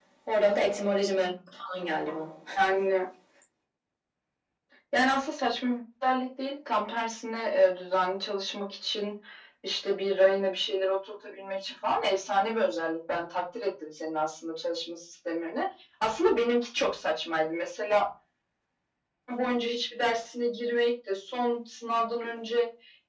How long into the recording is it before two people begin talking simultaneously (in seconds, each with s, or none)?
none